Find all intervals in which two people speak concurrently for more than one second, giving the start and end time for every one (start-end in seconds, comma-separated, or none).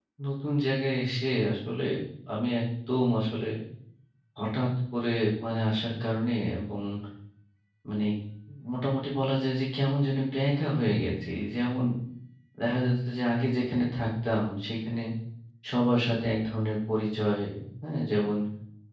none